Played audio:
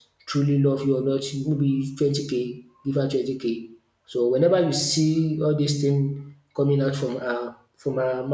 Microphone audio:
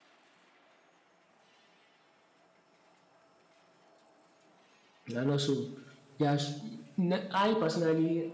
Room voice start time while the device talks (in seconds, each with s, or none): 5.1 s